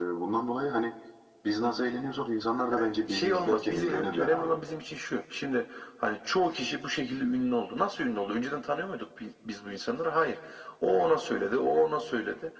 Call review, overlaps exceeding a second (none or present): present